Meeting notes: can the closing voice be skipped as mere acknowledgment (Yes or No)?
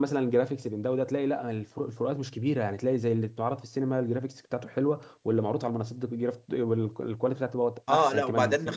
No